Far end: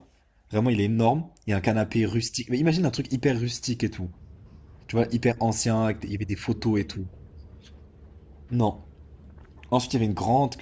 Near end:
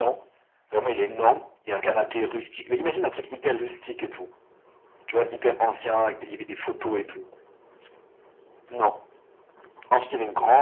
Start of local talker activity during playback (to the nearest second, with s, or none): none